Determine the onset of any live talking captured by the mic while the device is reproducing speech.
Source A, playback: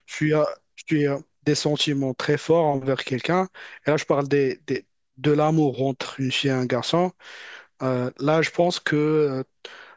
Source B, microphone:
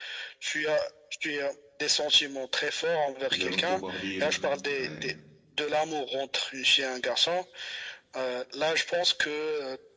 3.3 s

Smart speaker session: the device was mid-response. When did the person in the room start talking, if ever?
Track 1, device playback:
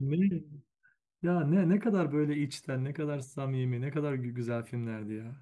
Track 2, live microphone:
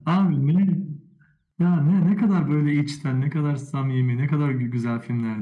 none

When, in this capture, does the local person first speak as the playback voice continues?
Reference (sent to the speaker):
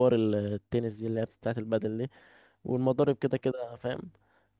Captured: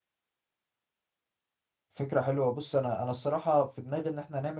1.9 s

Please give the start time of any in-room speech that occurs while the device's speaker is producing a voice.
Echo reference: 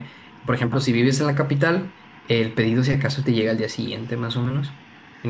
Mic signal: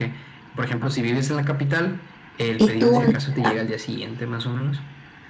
2.6 s

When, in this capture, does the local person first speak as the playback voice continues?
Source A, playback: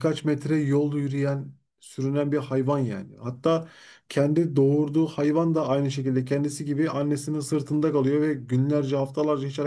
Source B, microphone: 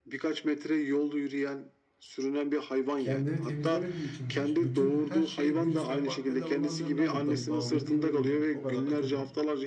3.0 s

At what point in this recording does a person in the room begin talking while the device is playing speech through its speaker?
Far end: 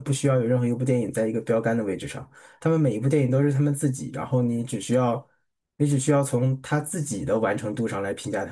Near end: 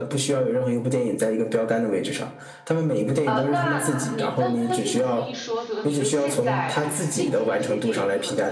3.2 s

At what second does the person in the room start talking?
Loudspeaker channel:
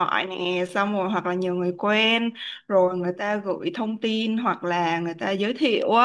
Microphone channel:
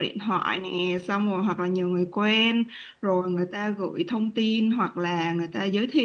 none

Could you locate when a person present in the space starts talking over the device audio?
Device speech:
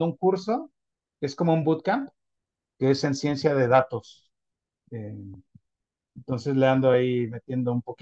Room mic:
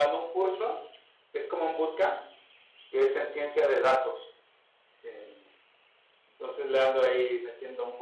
none

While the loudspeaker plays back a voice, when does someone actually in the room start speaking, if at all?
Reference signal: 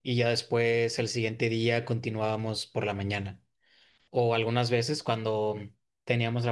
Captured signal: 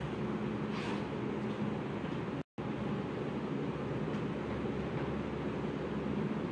none

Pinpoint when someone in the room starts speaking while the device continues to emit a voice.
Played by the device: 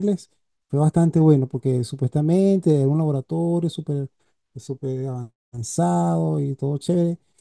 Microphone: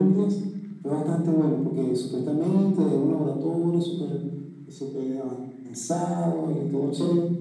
none

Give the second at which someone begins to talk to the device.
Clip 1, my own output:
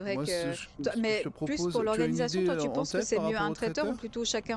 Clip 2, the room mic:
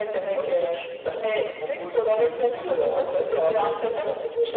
none

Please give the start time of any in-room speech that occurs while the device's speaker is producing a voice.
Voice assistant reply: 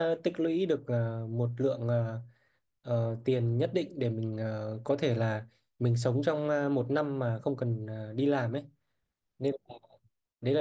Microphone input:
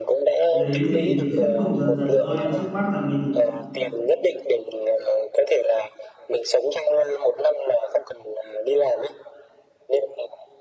0.5 s

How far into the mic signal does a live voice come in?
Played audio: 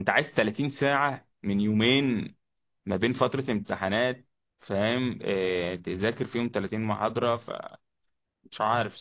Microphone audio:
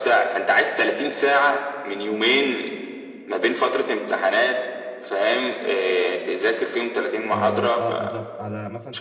7.1 s

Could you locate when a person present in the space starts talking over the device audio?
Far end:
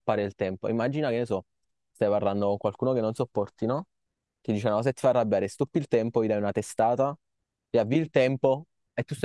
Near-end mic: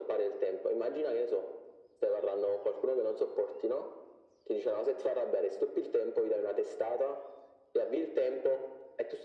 none

